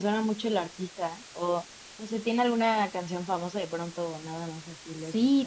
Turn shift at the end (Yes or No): Yes